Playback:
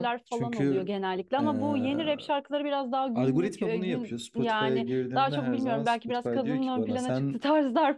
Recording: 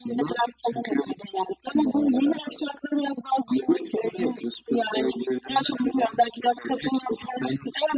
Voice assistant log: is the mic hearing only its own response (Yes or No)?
Yes